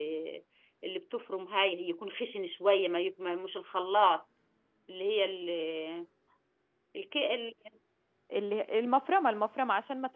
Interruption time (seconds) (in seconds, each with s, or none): none